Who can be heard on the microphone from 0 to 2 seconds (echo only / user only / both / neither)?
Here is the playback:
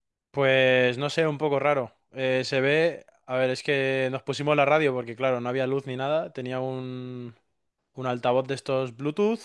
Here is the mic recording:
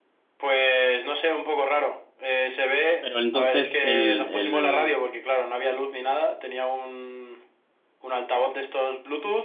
echo only